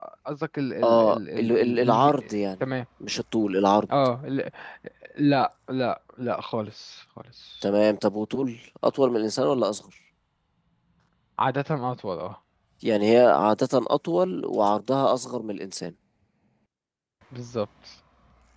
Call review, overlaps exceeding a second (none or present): present